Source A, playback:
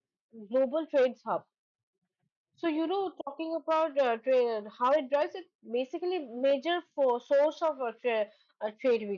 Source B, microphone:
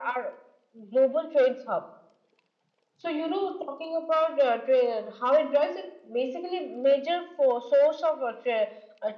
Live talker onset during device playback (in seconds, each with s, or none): none